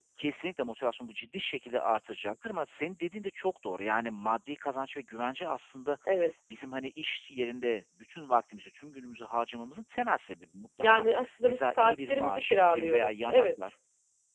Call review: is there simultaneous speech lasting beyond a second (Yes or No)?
Yes